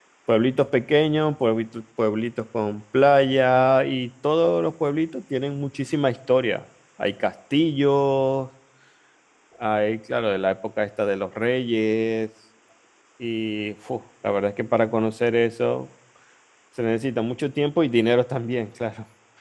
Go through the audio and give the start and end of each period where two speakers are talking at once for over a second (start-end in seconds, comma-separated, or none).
none